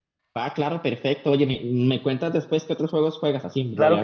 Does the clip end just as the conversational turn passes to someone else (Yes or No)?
Yes